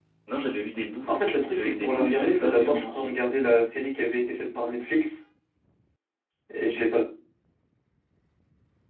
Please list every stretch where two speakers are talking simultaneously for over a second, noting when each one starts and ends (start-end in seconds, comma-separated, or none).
1.5-3.1